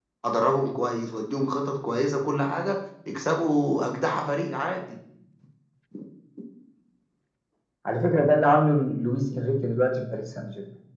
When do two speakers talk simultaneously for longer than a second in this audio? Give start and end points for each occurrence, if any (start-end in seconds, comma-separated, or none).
none